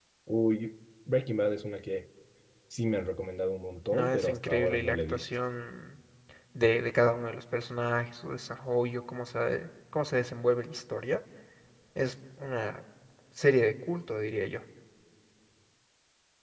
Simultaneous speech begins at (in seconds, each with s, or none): 3.9 s